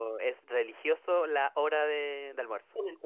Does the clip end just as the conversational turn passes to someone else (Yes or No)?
No